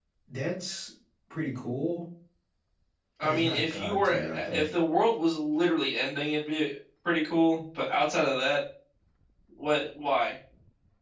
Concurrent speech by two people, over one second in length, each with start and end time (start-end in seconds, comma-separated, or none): 3.2-4.7